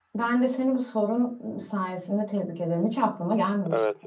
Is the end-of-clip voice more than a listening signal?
Yes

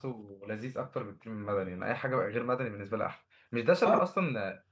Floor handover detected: No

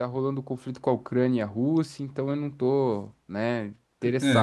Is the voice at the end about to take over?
Yes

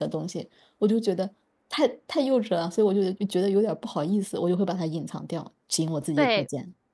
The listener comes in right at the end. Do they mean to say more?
Yes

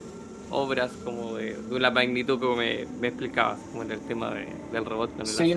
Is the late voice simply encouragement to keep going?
No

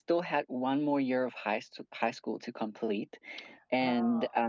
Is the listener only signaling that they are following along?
Yes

